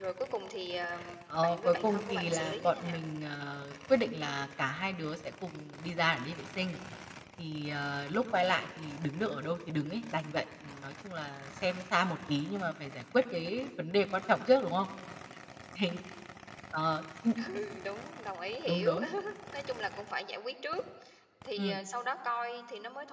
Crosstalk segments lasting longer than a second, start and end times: 1.4-3.0

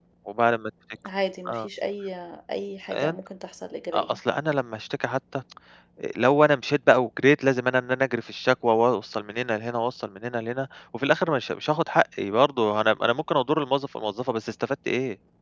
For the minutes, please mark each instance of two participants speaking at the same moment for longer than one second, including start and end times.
none

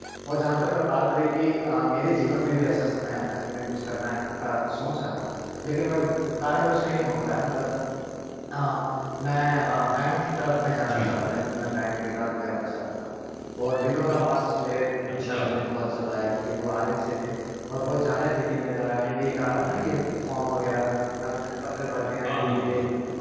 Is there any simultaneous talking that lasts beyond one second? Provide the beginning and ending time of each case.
none

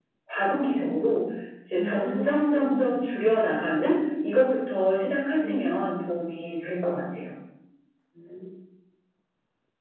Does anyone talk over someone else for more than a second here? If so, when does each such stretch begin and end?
1.8-3.0

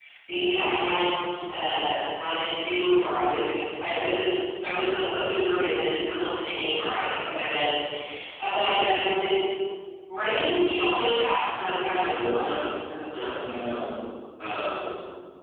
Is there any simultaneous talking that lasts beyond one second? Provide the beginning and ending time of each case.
none

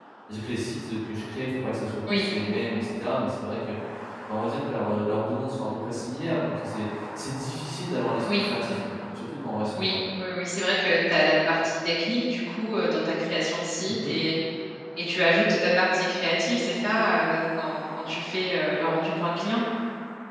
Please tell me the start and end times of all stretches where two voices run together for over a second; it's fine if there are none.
none

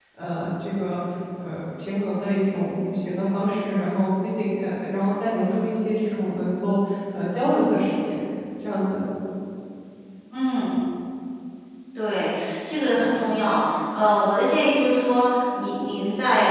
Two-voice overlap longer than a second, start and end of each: none

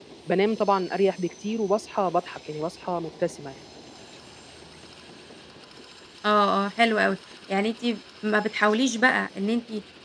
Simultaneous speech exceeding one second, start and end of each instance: none

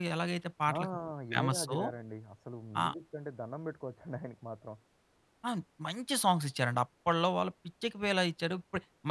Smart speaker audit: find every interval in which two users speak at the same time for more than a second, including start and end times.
none

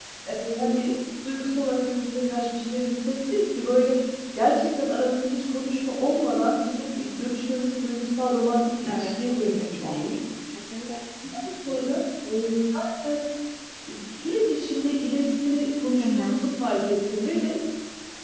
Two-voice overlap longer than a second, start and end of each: 8.9-10.2

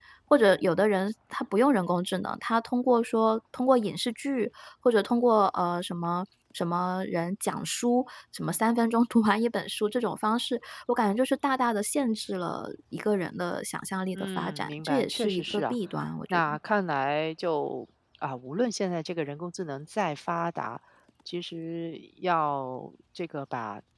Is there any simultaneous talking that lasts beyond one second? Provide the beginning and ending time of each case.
14.1-15.8

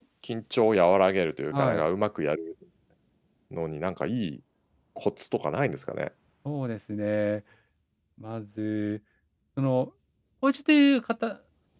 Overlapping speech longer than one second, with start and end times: none

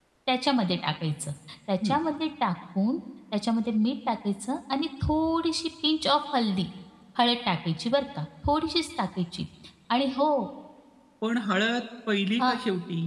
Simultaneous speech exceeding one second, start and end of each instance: none

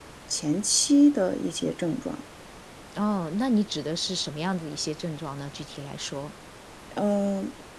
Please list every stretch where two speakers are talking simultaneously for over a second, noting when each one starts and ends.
none

